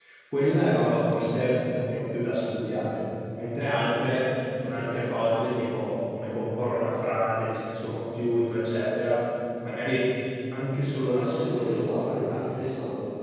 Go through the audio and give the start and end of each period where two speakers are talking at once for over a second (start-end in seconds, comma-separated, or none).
11.2-12.7